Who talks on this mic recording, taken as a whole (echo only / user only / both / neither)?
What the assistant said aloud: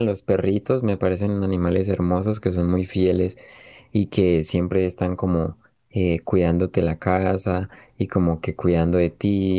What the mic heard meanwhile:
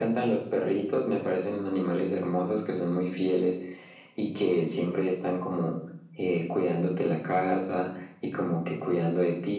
echo only